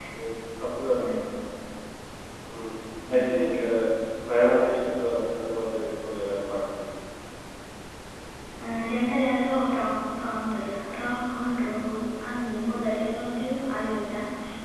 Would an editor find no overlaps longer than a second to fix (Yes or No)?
Yes